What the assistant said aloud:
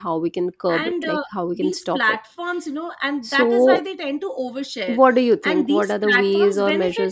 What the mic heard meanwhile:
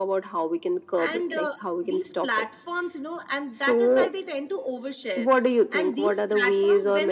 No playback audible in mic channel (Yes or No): No